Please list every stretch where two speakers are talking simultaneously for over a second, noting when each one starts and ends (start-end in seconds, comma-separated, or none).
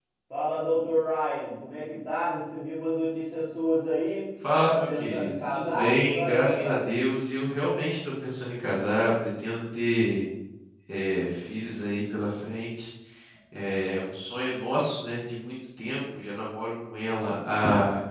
4.6-6.8